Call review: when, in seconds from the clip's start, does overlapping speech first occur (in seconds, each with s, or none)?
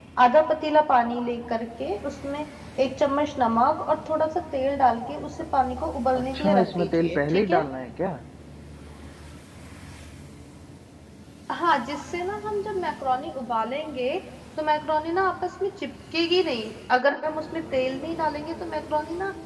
6.2 s